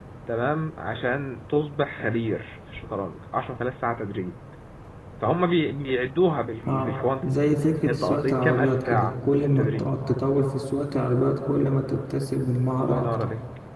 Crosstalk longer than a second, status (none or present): present